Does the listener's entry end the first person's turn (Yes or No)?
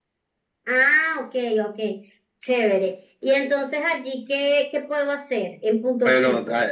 Yes